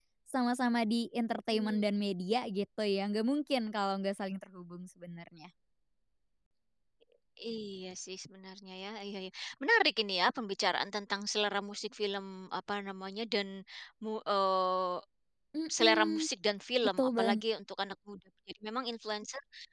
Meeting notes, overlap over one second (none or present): none